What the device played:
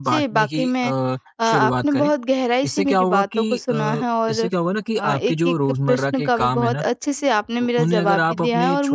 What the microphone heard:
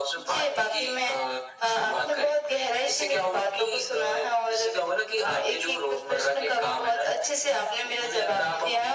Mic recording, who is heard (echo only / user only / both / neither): echo only